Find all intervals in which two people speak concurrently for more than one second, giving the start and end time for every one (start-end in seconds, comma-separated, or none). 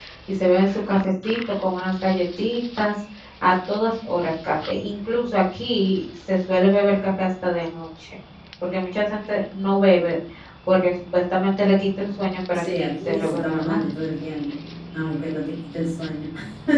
12.5-13.8